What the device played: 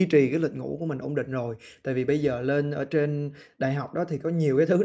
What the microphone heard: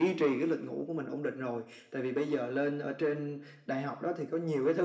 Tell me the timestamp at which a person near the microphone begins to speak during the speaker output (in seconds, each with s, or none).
none